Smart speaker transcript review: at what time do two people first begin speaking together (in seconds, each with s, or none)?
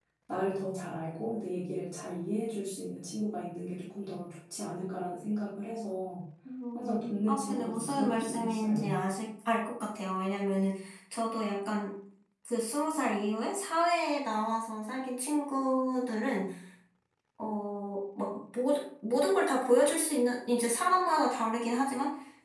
6.7 s